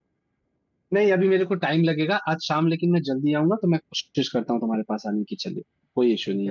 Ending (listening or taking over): taking over